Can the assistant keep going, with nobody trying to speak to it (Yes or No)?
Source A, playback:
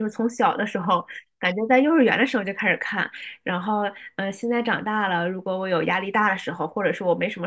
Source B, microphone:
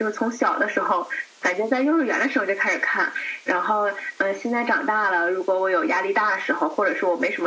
Yes